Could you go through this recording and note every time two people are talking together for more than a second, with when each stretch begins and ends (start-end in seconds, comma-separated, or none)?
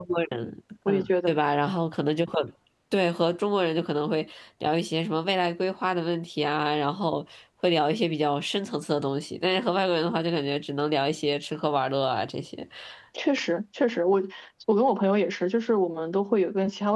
none